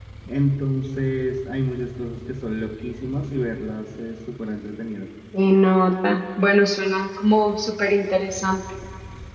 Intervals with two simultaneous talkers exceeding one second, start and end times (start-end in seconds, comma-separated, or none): none